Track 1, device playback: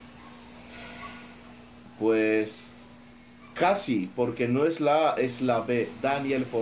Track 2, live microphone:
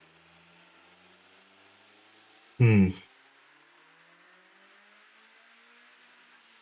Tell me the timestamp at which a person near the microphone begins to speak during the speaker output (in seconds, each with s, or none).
2.6 s